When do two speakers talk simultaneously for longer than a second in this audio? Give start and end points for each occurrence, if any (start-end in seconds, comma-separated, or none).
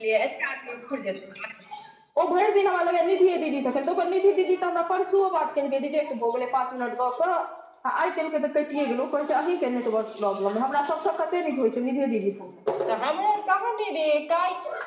none